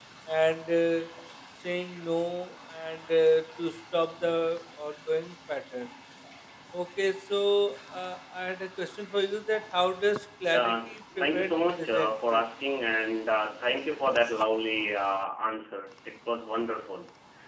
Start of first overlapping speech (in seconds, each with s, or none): 10.4 s